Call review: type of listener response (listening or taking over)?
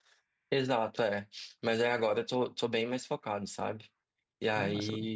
listening